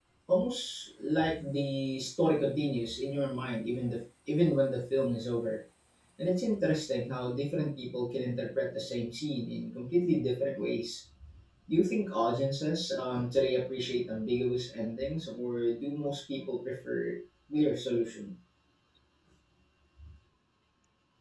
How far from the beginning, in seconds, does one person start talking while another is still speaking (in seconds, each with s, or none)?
none